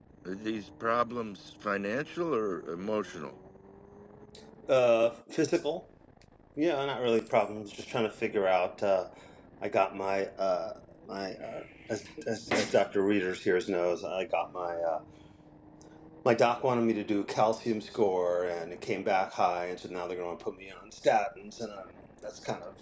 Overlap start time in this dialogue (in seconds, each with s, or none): none